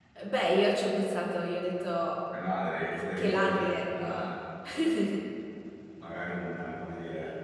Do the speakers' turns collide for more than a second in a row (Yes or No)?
Yes